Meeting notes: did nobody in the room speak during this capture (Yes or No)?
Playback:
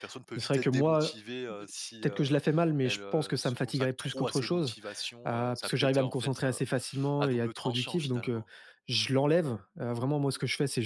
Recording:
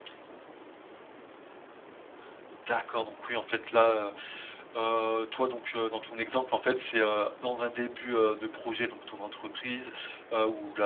No